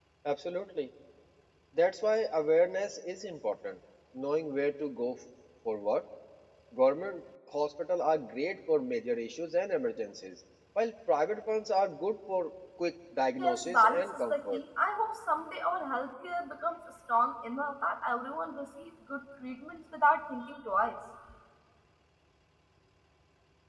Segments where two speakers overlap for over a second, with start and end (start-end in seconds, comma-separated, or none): 13.4-14.6